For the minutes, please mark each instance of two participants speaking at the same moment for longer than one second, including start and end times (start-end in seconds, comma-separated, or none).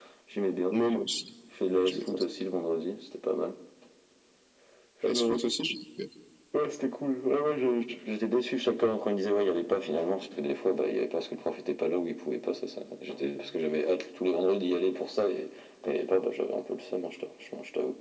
none